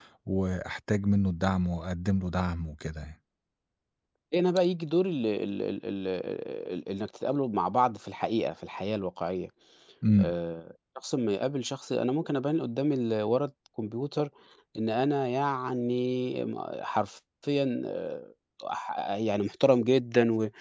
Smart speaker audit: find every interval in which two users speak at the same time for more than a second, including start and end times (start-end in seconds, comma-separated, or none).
none